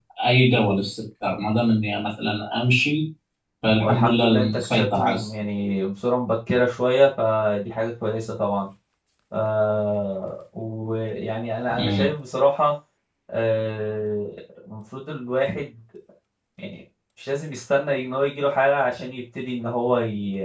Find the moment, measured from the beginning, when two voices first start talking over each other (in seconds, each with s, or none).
3.8 s